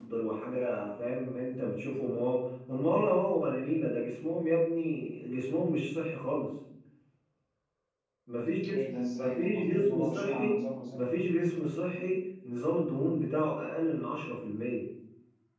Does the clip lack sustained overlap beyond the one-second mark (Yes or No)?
No